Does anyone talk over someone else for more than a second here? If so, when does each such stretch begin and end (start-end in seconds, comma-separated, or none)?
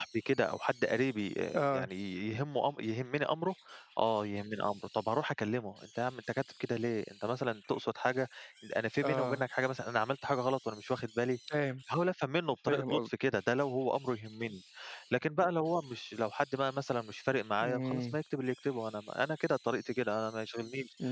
none